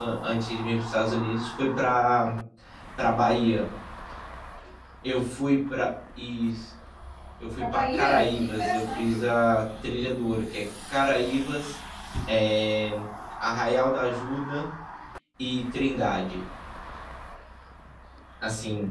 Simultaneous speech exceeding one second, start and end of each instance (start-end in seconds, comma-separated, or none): 7.6-9.3